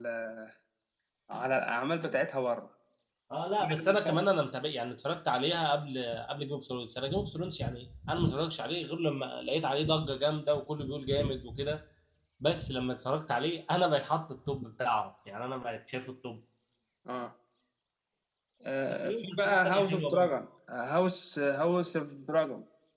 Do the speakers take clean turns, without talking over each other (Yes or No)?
No